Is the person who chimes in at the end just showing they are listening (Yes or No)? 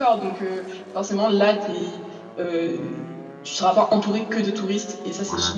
No